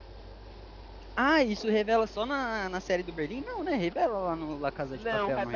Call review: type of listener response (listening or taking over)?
taking over